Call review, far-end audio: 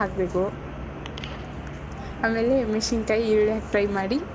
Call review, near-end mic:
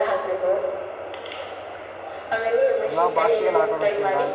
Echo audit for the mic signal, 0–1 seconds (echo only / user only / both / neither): echo only